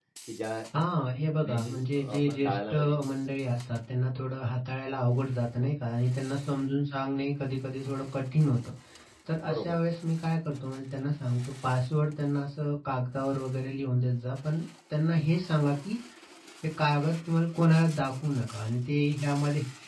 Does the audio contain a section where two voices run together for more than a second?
Yes, from 1.4 s

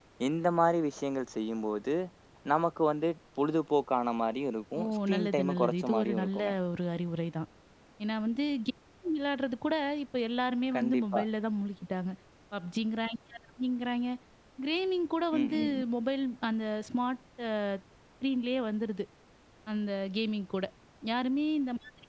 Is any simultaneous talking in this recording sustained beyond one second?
Yes, from 4.8 s

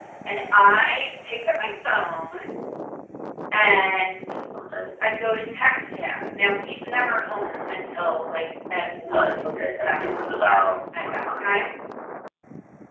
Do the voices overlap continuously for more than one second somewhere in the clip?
Yes, from 9.0 s

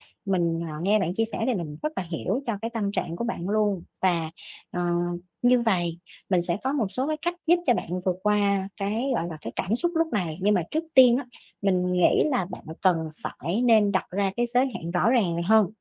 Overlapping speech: No

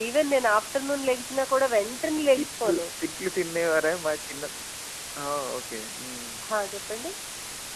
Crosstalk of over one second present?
No

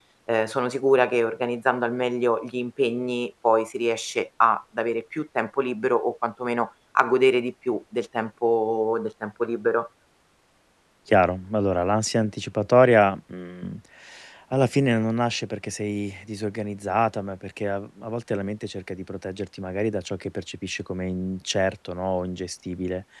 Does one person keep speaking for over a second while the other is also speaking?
No

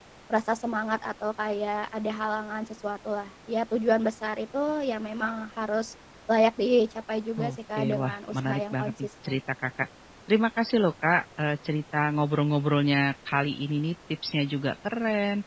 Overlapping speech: Yes, from 7.4 s

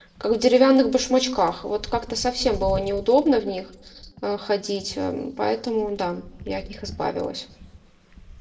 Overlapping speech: No

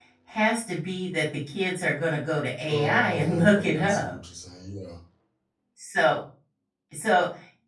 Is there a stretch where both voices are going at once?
Yes, from 2.6 s

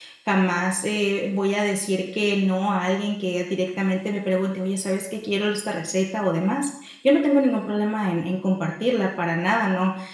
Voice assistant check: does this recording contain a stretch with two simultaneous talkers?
No

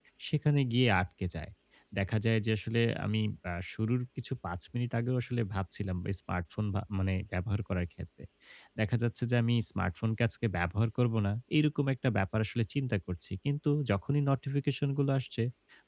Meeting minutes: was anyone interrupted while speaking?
No

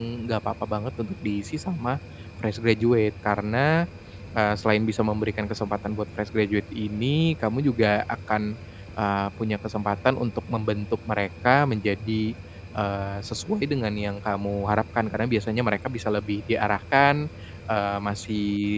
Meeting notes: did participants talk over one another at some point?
No

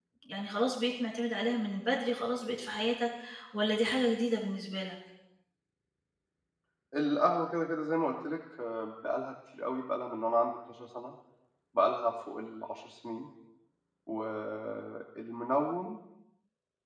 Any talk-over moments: No

